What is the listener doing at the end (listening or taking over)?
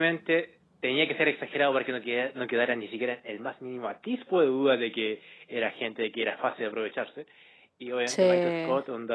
listening